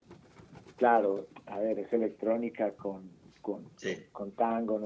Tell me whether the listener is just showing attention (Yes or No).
Yes